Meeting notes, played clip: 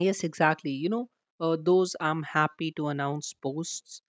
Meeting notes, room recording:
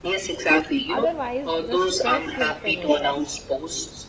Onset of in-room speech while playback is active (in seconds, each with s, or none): 0.9 s